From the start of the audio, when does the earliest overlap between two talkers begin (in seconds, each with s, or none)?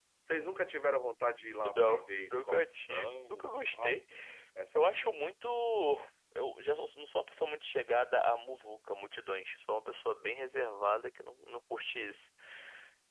1.8 s